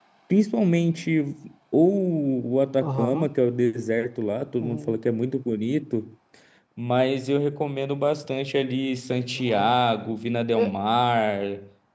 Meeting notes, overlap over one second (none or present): none